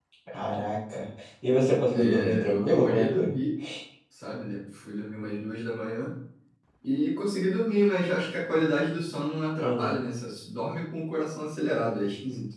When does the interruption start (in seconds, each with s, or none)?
1.9 s